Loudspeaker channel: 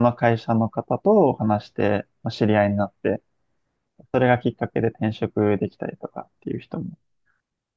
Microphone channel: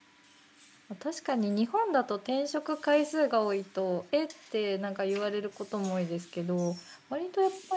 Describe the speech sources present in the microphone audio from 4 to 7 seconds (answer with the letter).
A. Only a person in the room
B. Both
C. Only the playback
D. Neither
A